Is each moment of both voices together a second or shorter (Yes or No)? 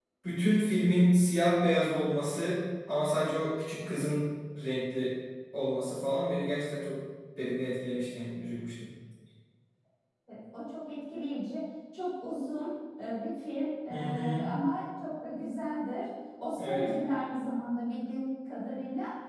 Yes